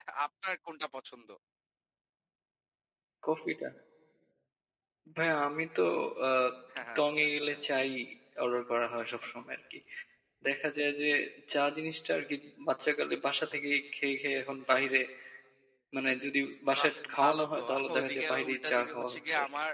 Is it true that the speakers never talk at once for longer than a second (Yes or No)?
No